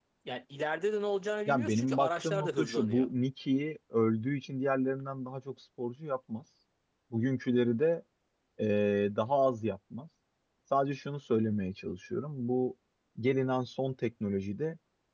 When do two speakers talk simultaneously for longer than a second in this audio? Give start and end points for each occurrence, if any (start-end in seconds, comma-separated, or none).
1.5-3.1